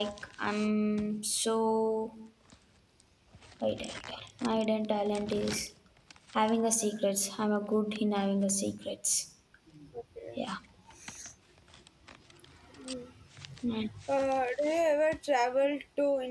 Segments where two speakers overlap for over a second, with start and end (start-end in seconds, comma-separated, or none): none